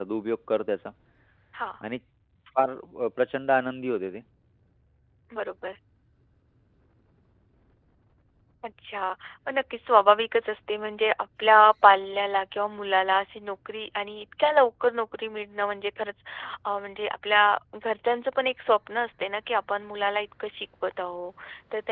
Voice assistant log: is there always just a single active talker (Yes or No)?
Yes